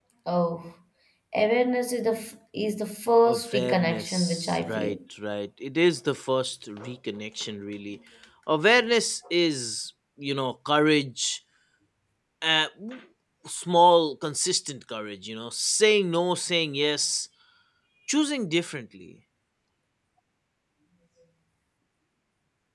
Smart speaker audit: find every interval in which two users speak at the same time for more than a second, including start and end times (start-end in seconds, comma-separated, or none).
3.2-5.0